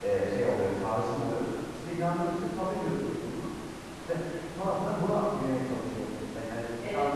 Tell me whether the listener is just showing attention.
No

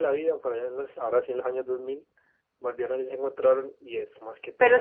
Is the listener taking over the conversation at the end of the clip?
Yes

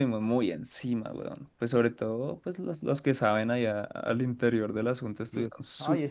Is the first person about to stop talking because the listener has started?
Yes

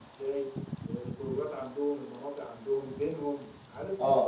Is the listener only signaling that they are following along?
Yes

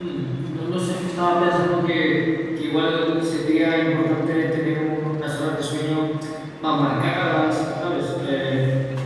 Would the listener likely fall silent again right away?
Yes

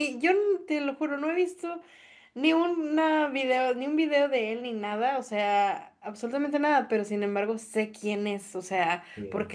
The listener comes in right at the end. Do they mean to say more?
No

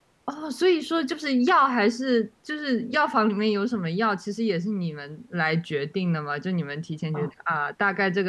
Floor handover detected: No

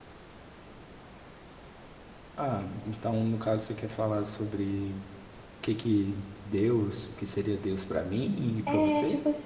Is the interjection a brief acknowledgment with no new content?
No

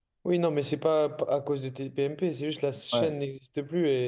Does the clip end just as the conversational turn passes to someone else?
No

